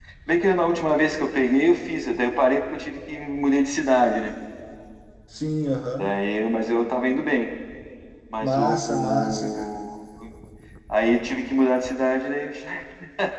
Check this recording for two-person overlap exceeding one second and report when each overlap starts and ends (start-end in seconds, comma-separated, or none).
8.4-9.7